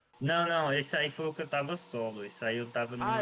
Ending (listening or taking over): taking over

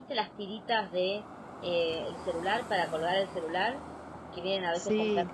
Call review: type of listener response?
listening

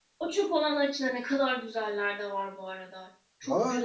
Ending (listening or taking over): taking over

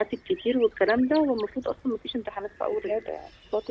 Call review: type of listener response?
taking over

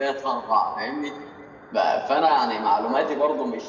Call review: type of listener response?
listening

